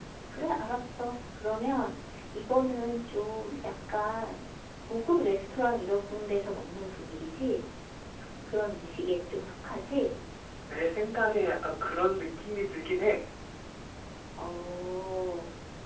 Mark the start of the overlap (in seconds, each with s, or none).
none